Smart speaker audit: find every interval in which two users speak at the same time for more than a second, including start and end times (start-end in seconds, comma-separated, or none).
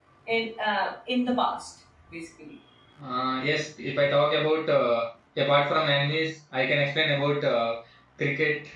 none